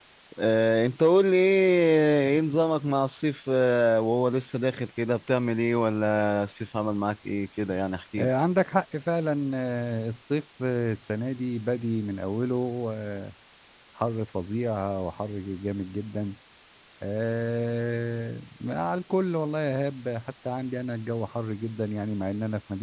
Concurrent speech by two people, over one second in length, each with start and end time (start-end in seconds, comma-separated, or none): none